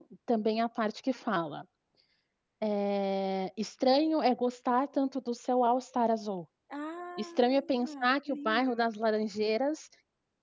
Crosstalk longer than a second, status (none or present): present